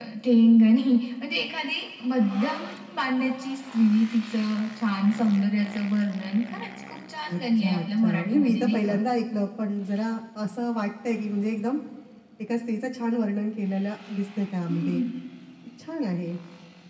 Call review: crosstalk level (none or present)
present